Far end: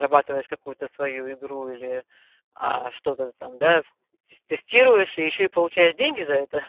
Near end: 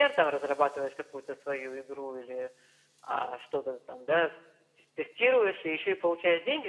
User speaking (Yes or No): No